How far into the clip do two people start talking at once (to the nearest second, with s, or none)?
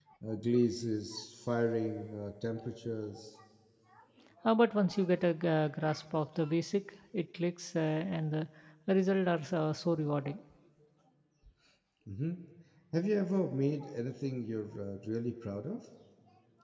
none